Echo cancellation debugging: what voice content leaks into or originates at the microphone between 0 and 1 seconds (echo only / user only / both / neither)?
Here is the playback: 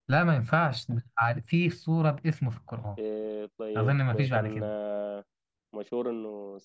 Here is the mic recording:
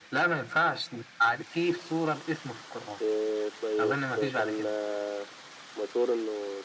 echo only